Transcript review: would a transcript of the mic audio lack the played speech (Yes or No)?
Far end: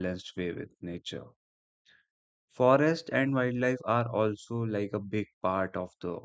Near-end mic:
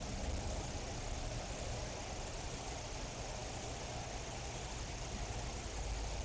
Yes